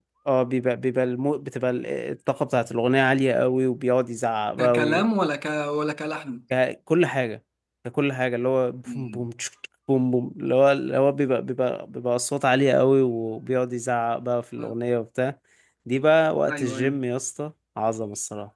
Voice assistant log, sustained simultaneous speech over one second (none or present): none